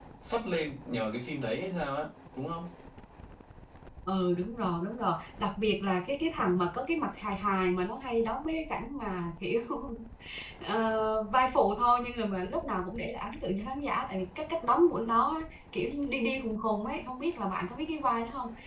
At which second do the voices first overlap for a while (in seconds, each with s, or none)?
none